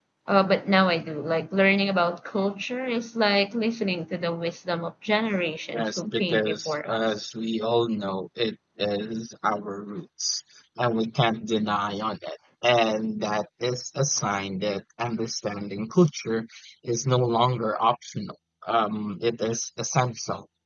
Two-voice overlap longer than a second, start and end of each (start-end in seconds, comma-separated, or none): 5.8-7.0